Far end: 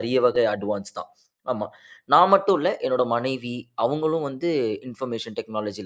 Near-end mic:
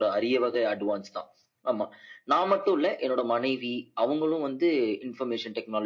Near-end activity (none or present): none